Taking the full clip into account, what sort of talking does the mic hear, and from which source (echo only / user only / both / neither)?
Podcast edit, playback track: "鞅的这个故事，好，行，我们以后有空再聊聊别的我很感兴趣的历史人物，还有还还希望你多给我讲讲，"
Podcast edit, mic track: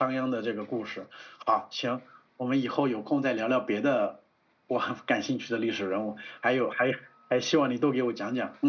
echo only